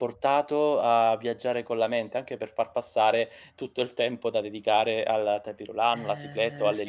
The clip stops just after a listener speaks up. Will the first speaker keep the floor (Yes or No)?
No